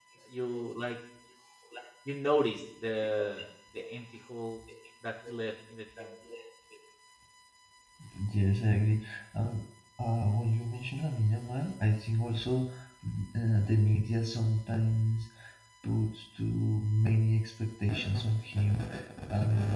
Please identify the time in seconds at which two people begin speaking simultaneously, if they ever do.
none

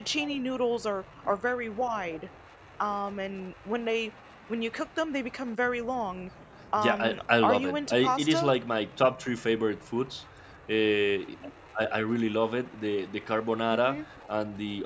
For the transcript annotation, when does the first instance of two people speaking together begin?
6.8 s

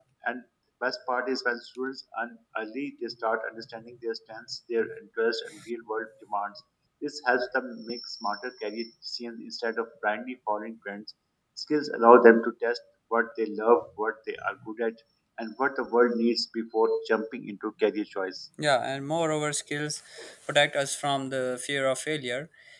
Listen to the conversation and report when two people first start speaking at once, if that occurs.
none

